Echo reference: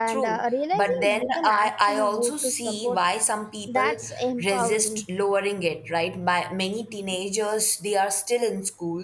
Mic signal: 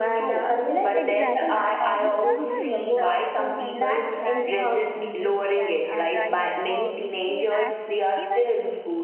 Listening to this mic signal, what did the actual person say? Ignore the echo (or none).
Exactly. Uh, we trust them with uh, so many things at 16. They can uh, drive, work, paid access, even